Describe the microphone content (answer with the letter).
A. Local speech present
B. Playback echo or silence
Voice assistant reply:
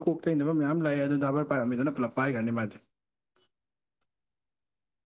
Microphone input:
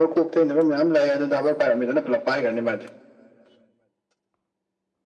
B